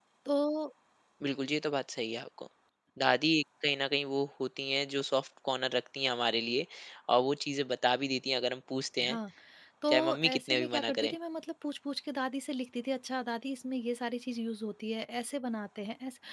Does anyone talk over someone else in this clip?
Yes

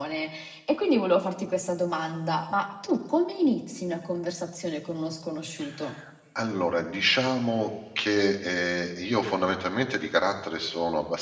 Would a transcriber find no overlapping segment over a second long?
Yes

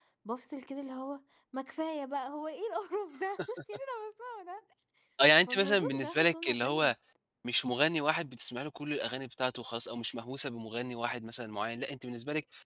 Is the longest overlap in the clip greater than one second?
Yes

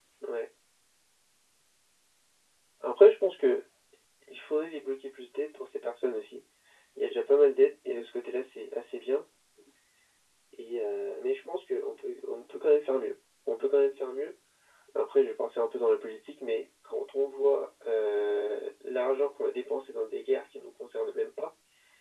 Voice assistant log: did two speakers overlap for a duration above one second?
No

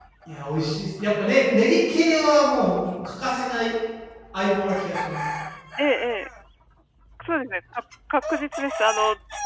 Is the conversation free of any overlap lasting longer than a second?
Yes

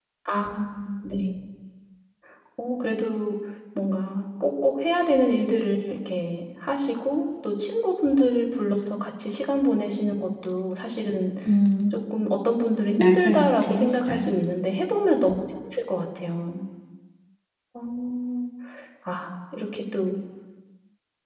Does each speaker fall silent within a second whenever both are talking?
No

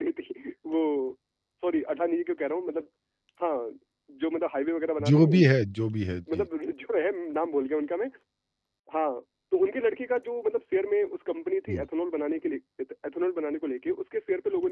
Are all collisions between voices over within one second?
Yes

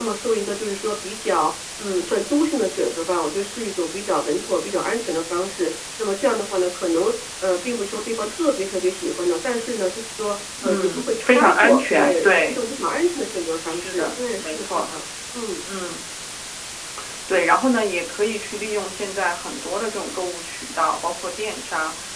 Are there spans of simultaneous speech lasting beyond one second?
Yes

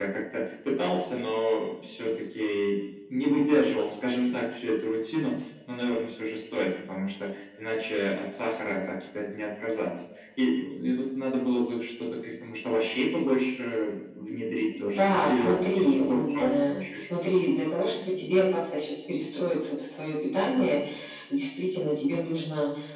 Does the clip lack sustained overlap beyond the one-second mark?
No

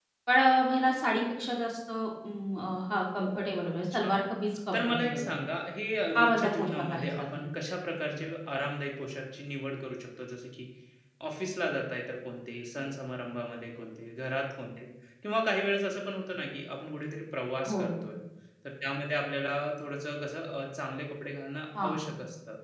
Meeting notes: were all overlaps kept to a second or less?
No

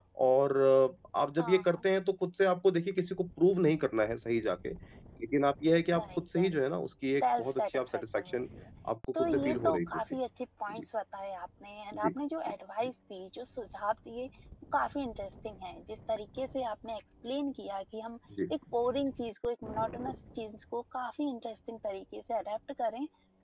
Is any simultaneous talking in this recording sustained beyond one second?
Yes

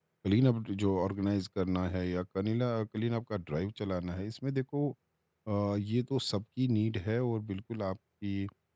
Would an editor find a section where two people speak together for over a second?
No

